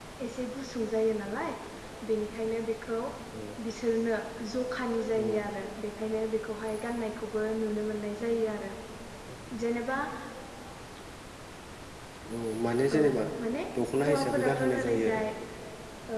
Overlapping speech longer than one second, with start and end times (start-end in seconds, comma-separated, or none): 14.1-15.3